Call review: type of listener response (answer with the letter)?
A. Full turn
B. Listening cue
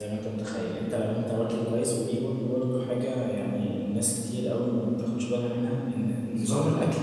B